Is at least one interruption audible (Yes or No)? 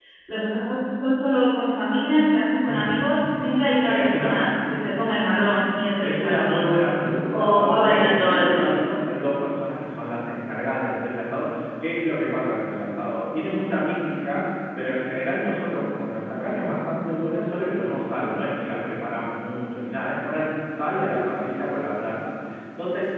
Yes